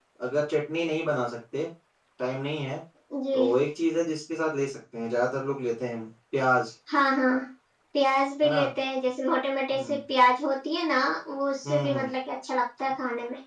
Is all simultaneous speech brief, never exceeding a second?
Yes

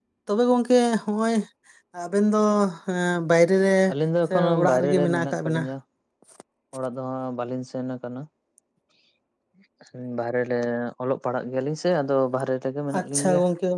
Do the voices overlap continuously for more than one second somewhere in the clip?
Yes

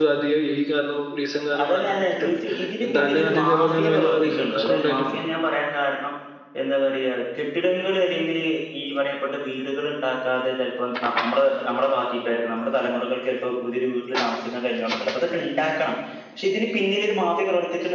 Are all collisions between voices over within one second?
No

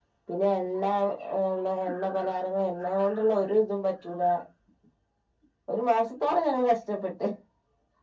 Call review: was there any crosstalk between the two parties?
No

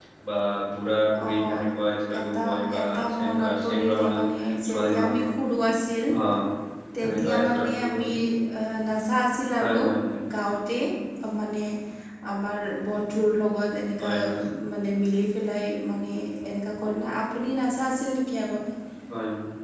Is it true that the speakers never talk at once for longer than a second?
No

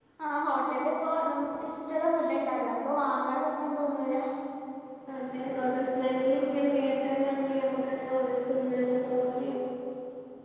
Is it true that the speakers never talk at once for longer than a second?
Yes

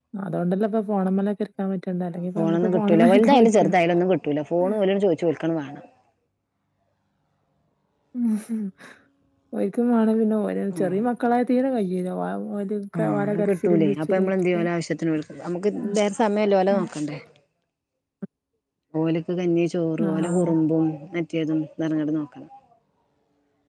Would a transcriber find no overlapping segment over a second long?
No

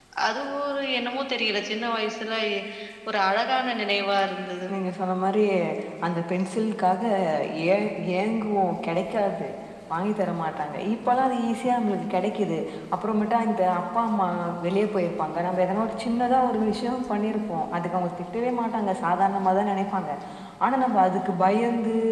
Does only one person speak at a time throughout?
Yes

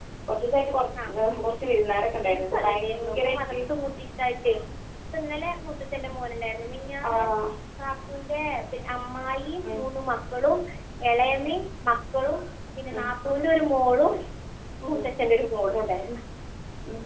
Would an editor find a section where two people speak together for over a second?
Yes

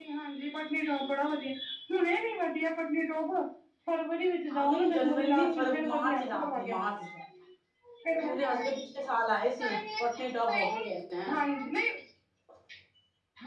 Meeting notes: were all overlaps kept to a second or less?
No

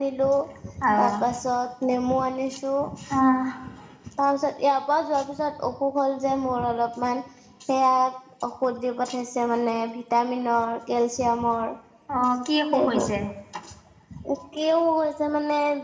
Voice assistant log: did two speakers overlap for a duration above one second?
No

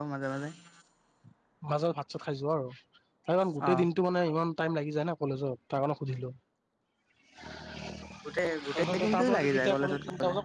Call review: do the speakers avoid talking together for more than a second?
No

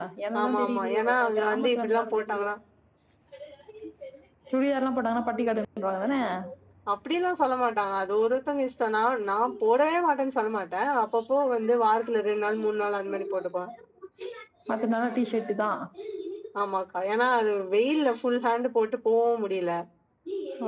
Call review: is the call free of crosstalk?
No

